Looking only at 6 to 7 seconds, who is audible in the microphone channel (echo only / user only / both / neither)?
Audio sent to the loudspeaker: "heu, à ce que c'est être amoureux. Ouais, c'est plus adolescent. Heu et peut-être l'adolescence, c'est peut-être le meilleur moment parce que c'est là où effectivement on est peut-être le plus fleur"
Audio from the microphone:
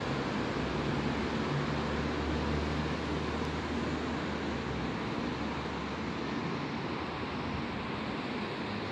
neither